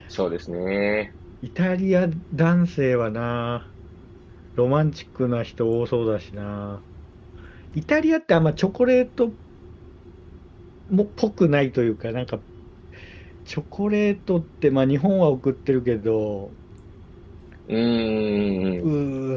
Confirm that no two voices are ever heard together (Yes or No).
Yes